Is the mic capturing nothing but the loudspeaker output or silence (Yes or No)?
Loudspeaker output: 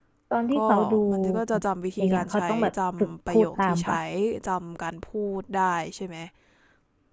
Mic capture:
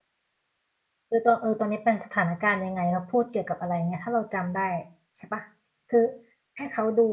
No